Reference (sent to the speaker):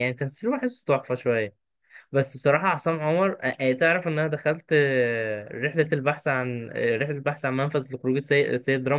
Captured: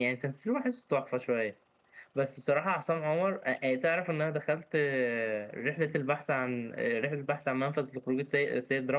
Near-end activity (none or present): none